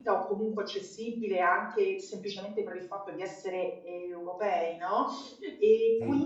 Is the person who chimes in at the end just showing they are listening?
Yes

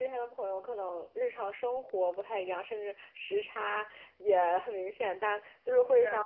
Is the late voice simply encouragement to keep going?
Yes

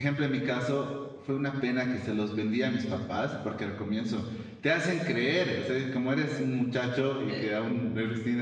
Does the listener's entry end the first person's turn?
No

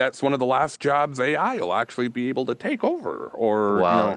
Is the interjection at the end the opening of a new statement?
Yes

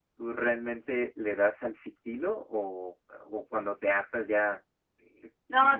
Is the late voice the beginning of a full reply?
Yes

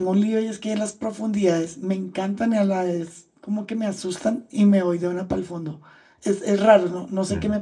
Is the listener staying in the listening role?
Yes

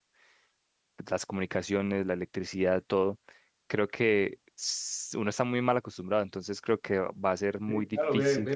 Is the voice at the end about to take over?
Yes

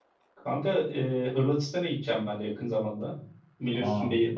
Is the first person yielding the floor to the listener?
No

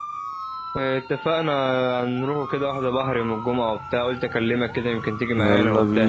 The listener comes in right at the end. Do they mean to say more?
Yes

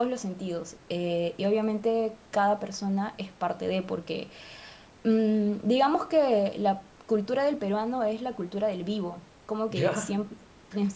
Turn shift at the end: No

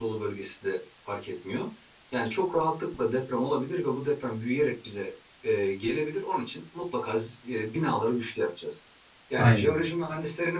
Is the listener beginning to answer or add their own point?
No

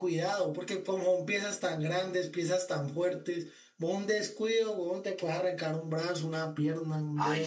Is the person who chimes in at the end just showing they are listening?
No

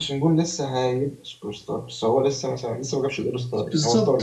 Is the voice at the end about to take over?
Yes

